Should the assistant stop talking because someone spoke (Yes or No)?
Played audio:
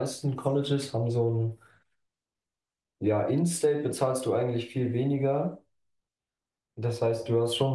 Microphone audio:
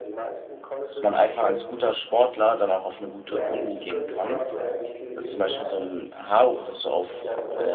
Yes